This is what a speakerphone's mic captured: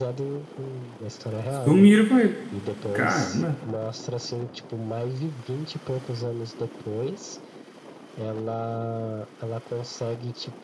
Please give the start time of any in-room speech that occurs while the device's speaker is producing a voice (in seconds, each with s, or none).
1.5 s